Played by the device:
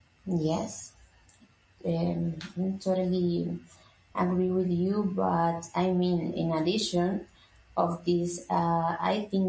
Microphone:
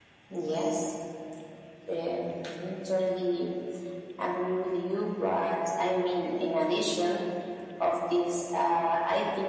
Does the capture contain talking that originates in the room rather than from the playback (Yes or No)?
No